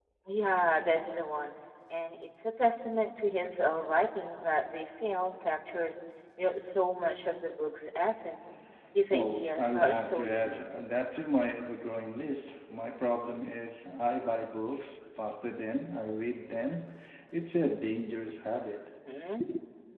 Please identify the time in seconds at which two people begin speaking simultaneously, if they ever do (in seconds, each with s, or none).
9.1 s